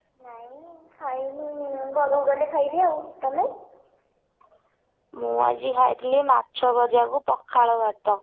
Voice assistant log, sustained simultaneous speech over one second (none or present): none